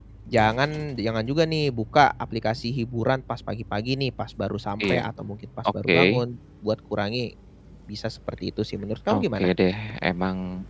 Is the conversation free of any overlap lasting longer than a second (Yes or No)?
Yes